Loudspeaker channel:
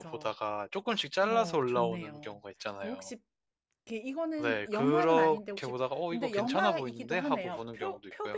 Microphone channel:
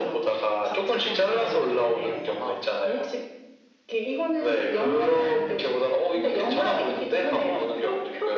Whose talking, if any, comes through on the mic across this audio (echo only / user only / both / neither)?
both